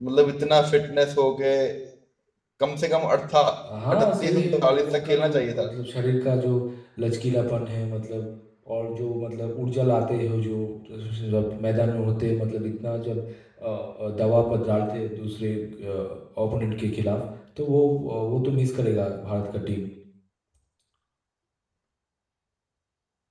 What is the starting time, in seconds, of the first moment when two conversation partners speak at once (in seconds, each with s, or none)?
3.9 s